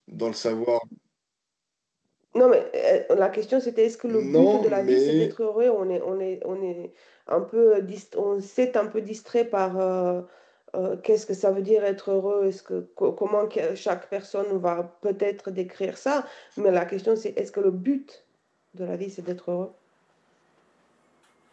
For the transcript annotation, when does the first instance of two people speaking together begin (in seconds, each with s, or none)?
4.1 s